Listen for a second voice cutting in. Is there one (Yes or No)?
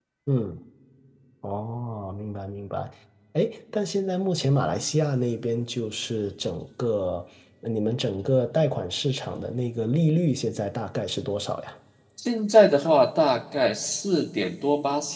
No